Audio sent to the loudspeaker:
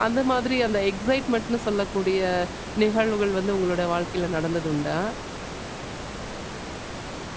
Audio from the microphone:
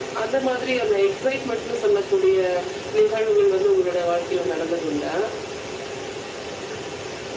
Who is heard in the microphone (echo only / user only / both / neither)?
echo only